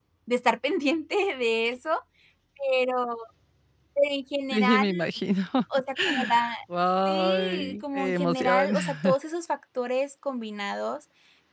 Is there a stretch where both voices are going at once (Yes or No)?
Yes